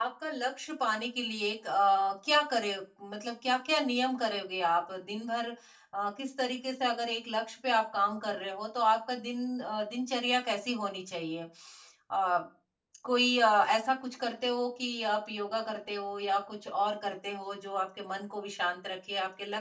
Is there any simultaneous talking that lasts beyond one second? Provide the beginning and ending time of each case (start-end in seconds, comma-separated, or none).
none